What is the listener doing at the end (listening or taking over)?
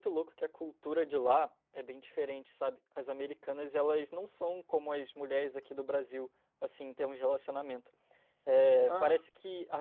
listening